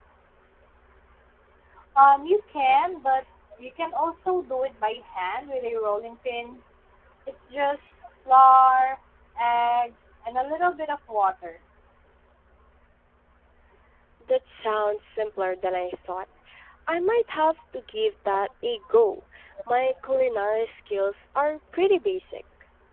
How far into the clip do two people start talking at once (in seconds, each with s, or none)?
none